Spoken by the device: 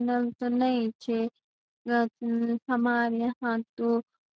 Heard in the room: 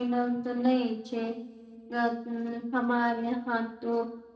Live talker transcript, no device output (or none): none